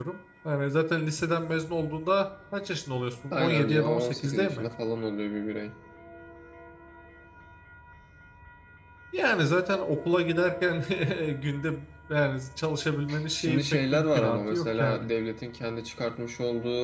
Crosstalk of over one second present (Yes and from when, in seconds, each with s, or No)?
Yes, from 3.3 s